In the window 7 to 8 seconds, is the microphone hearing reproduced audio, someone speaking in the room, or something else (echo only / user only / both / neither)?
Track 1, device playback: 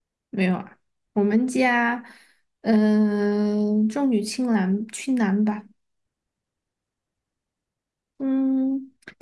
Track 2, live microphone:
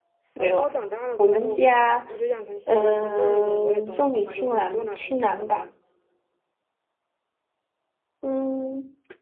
neither